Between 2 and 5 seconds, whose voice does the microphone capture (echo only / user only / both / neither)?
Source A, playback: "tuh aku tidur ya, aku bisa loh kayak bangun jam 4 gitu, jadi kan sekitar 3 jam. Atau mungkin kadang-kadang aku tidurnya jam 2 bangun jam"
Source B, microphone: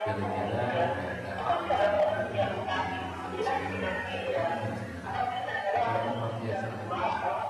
both